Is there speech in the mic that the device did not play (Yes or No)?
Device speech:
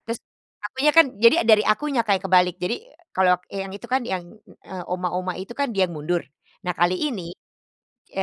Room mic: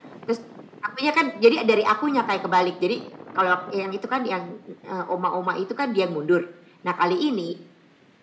No